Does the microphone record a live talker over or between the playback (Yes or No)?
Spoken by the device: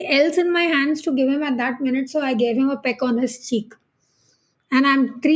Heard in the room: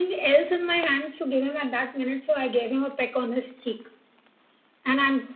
No